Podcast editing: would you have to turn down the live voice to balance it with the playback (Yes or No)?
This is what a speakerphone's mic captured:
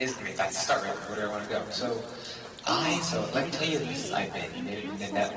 Yes